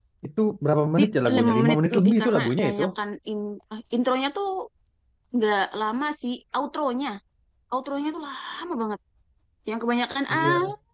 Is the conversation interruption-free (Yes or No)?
No